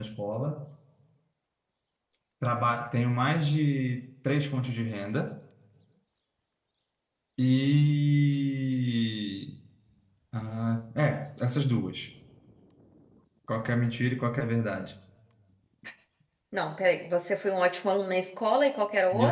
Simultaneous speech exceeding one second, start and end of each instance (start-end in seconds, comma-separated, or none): none